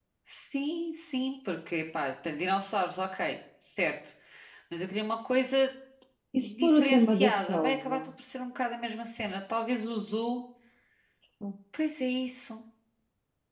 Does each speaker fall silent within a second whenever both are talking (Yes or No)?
No